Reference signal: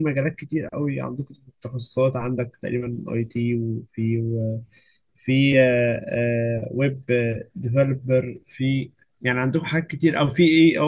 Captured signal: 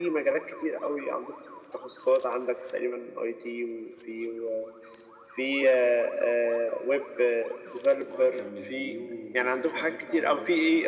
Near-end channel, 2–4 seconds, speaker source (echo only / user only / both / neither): echo only